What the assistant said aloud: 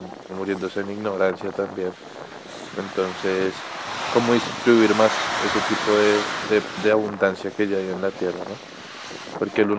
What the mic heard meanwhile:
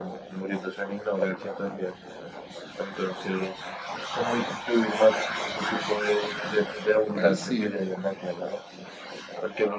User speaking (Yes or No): Yes